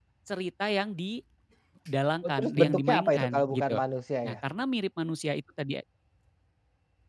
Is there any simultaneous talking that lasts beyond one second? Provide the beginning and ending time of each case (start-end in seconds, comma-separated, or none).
2.2-3.8